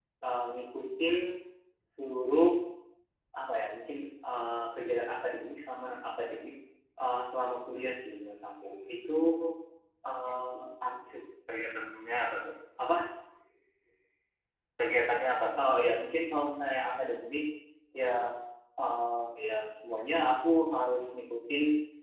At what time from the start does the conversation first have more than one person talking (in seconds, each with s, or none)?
none